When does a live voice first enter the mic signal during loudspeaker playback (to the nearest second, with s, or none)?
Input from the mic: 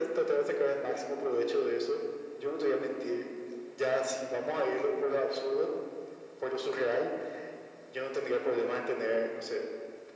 none